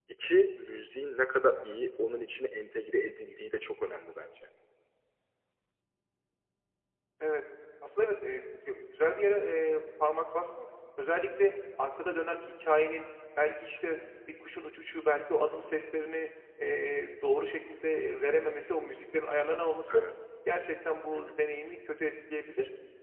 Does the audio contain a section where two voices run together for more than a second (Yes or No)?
No